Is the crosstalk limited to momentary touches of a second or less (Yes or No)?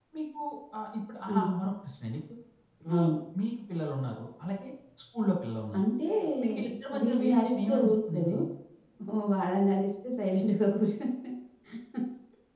No